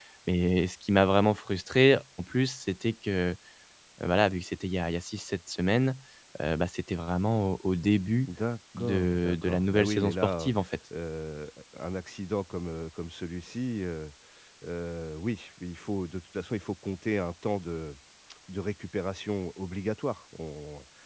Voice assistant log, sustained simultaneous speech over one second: present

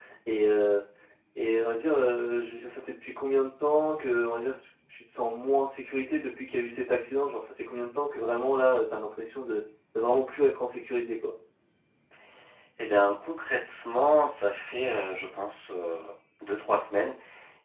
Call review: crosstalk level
none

